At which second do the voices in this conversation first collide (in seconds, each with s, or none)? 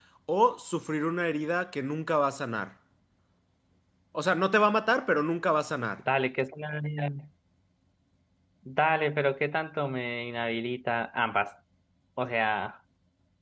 none